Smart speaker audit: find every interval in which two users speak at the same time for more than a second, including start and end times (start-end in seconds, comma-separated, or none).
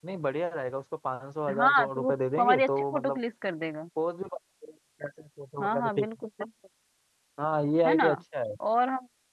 1.6-3.2